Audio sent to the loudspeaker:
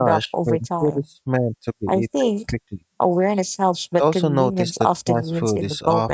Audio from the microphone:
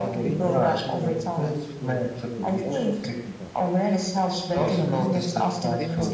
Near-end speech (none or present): present